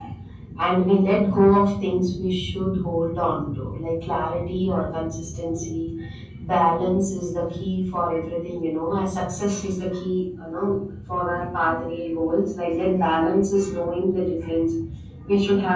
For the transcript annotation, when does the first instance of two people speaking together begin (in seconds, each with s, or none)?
none